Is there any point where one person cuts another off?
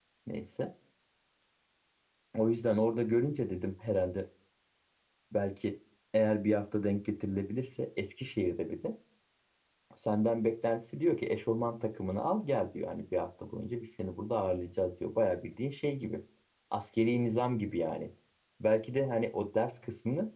No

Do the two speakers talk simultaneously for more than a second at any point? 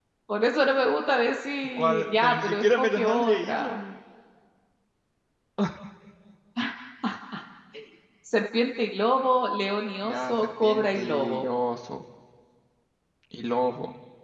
Yes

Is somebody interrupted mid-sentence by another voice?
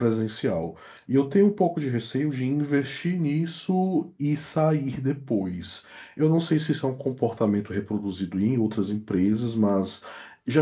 No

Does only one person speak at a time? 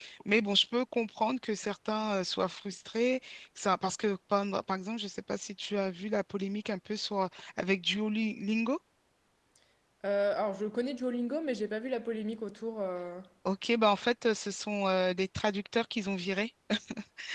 Yes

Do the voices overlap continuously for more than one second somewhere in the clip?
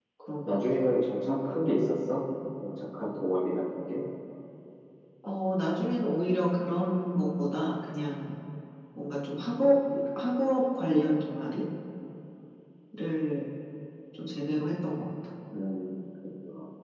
No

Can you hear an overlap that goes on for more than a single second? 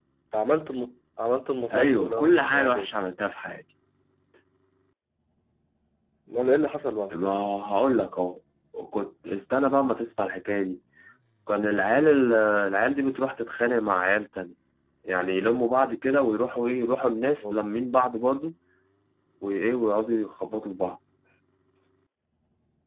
Yes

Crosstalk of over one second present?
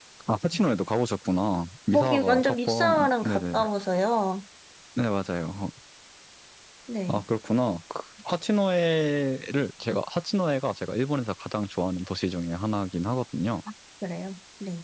Yes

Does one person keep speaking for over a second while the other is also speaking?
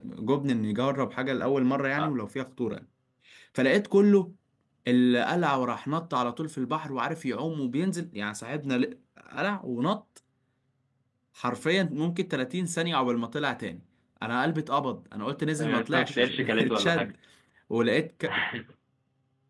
Yes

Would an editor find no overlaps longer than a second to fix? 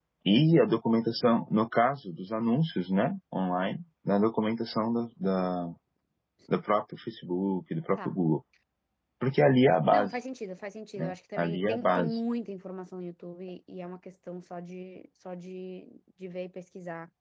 No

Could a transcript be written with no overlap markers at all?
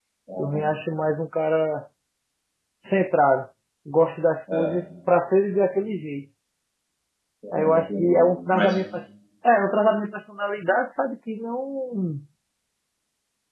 No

